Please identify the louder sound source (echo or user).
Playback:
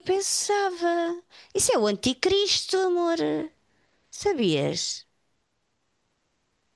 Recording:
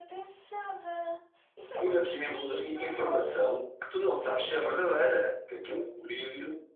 user